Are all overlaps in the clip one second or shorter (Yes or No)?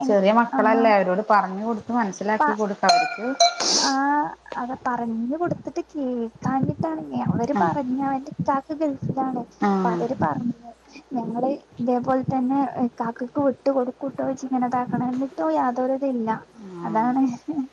Yes